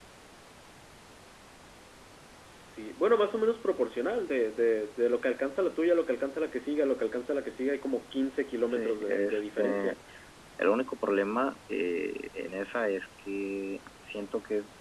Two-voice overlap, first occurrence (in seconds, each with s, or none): 8.7 s